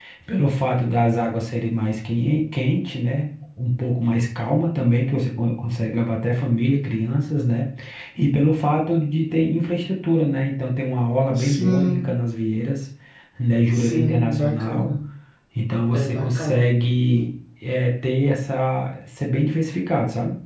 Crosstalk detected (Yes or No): Yes